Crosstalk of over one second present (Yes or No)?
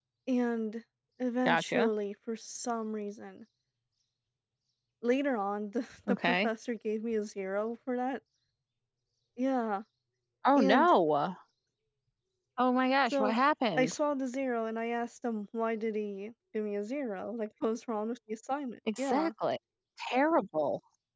No